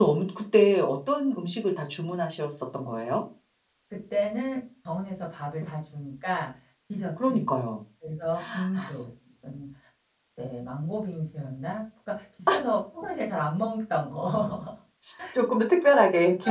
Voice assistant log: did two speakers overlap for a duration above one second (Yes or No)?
No